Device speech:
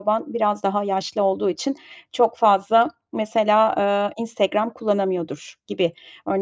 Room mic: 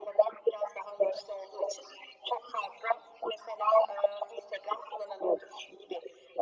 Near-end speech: none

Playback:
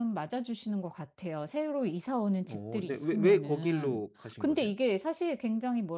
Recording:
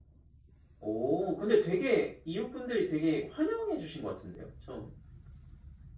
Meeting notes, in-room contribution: present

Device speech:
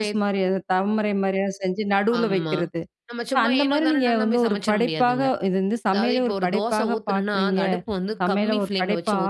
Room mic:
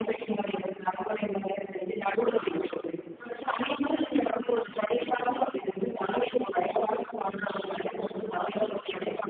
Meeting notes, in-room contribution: none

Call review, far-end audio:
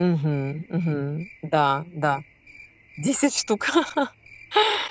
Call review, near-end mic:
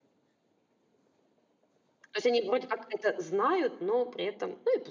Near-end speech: present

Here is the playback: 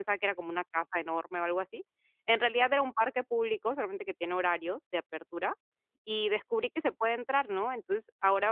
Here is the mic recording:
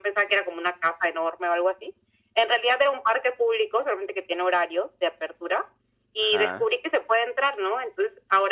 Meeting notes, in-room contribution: present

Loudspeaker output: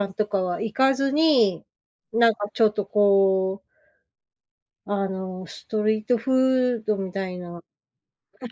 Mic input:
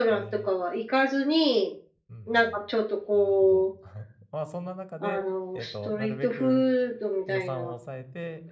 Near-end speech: present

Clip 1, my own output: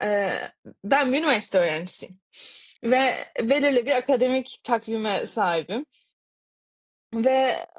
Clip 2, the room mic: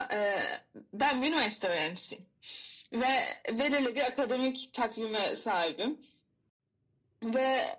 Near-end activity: none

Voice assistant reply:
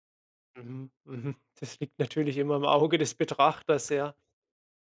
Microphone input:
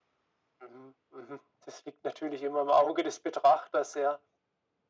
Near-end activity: none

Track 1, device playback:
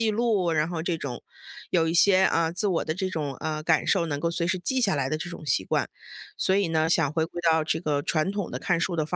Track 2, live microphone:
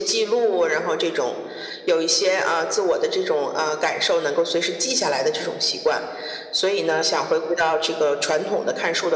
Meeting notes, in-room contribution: none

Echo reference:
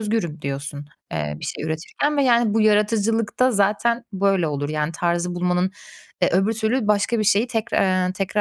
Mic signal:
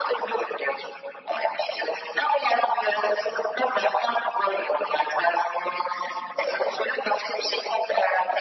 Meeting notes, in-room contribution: none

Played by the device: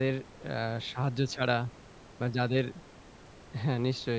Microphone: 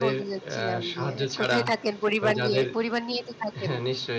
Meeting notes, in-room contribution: present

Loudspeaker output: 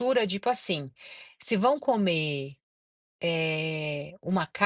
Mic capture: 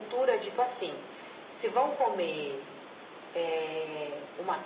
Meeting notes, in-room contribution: none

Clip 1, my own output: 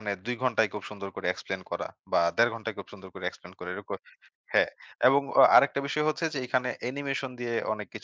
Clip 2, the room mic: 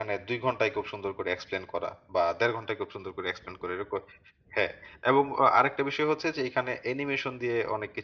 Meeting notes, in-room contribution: none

